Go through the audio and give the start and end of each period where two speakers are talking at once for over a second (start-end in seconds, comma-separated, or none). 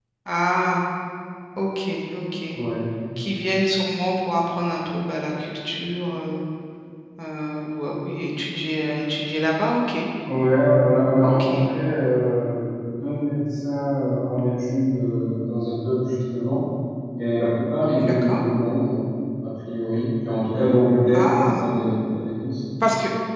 none